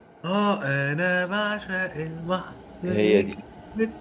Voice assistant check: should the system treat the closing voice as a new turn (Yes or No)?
No